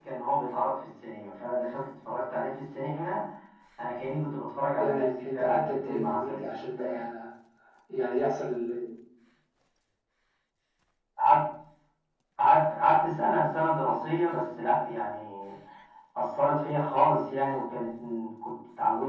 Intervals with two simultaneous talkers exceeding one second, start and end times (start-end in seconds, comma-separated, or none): 4.8-7.0